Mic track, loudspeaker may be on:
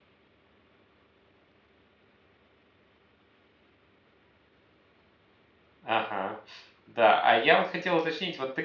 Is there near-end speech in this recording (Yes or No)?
Yes